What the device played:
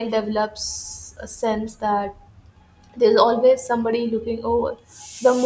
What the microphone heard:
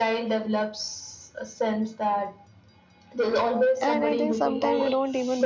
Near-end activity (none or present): present